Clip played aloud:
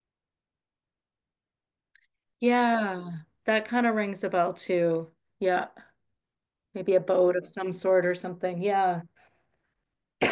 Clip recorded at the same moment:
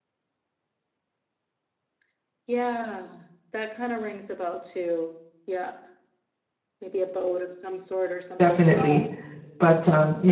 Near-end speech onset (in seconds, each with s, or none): 8.4 s